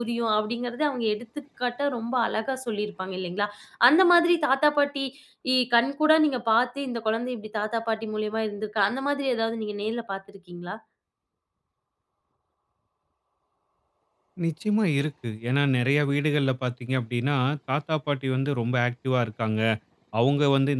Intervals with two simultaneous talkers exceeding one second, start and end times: none

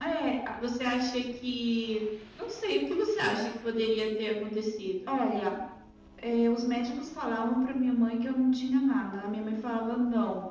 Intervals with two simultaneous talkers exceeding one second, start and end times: none

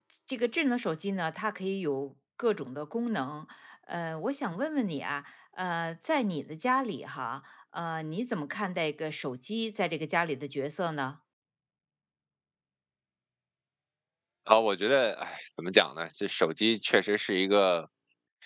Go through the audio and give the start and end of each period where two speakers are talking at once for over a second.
none

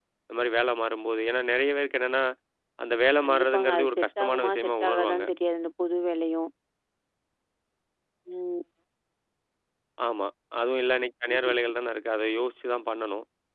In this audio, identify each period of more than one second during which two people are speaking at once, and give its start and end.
3.2-5.2

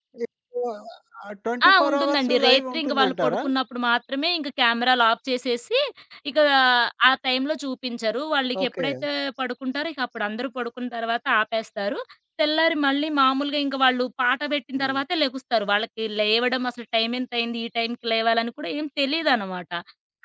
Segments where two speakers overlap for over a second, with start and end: 1.7-3.4

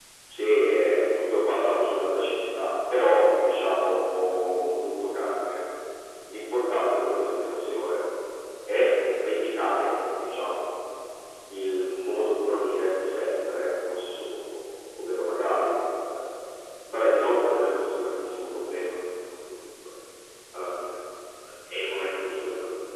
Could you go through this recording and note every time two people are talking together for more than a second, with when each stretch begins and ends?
none

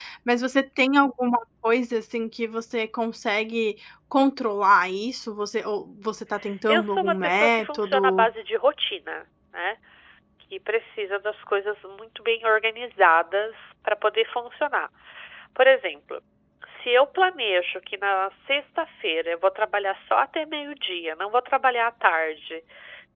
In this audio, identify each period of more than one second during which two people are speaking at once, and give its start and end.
6.7-8.3

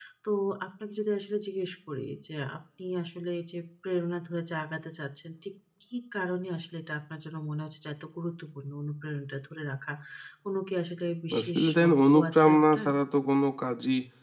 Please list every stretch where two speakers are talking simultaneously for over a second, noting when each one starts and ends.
11.4-12.9

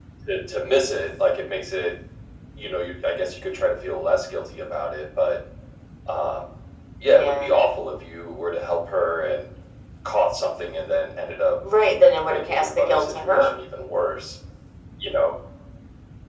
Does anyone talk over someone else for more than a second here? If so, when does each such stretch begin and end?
12.2-13.5

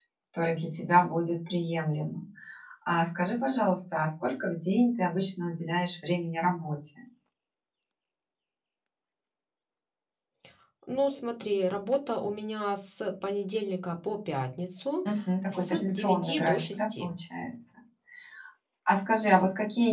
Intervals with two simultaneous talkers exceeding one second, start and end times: 15.5-17.1

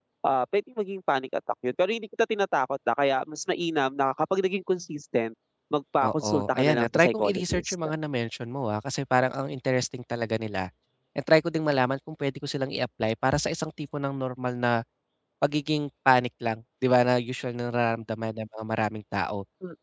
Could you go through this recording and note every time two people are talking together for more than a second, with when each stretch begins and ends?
6.0-7.8

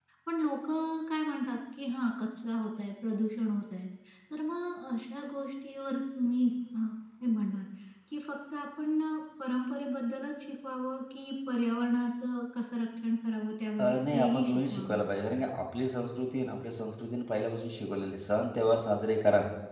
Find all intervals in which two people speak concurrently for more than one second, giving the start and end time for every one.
13.8-15.0

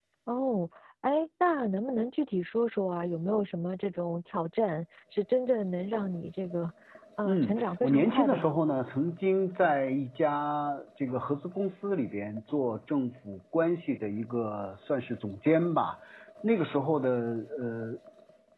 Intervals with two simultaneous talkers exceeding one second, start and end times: 7.2-8.6

